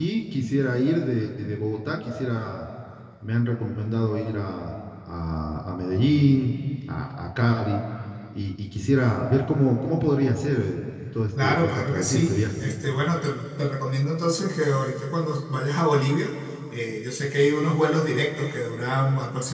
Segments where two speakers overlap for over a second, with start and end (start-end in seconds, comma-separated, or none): 11.4-12.7